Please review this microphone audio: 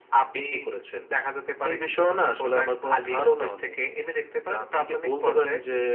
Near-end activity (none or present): none